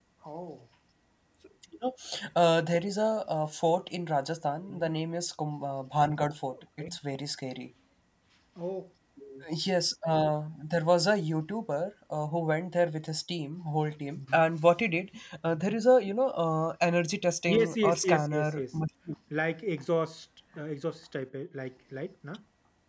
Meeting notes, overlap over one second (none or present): present